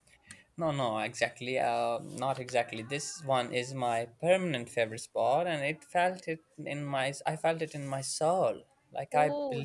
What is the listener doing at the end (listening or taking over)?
listening